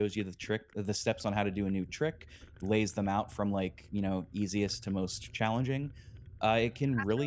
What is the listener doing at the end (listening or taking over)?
listening